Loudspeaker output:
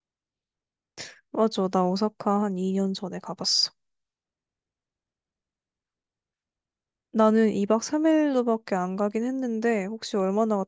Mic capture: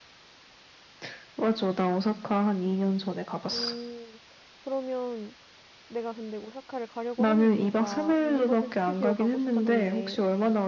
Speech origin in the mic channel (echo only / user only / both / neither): both